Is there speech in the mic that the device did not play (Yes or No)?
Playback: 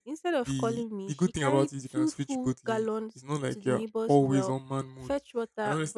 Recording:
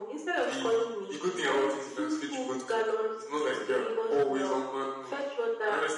No